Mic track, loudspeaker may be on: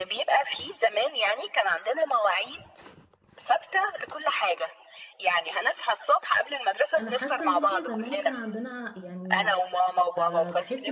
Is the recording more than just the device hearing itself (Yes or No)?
Yes